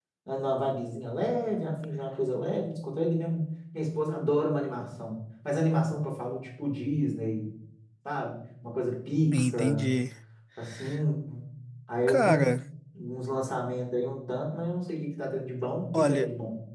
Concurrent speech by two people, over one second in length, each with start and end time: none

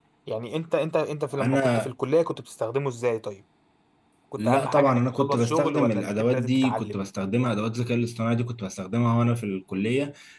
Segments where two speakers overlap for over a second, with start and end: 4.4-7.0

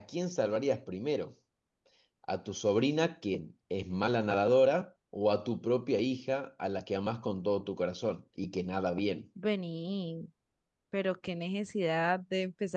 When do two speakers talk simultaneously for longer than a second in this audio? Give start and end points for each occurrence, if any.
none

